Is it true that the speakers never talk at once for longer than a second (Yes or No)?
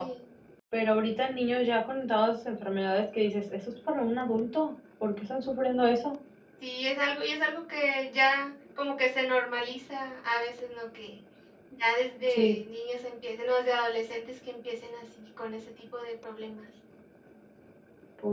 Yes